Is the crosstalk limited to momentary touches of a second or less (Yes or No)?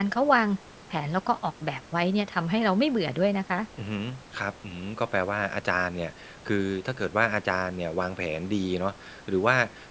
Yes